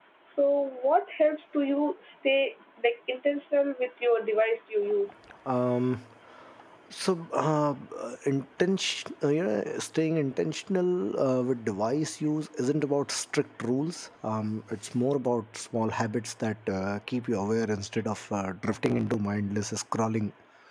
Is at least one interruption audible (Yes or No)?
No